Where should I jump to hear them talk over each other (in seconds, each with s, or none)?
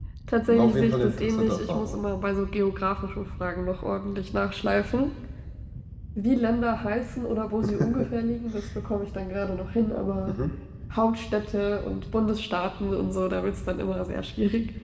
0.5 s